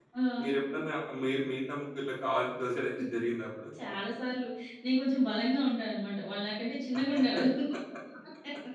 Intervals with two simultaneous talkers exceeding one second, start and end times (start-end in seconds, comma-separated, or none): none